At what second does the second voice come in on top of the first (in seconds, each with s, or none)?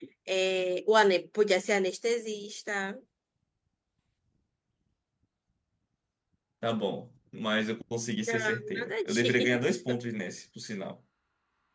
8.2 s